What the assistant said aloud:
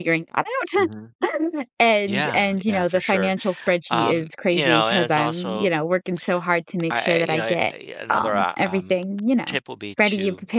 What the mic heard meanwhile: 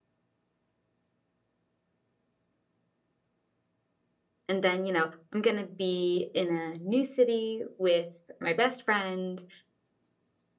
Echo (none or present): none